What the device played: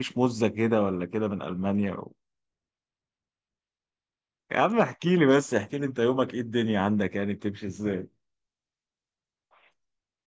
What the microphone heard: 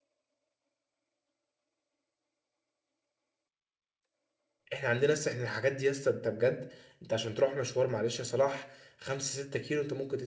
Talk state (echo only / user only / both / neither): user only